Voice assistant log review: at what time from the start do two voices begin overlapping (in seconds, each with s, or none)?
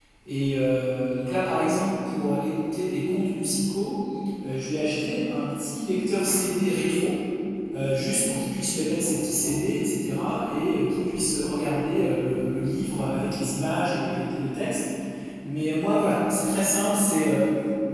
none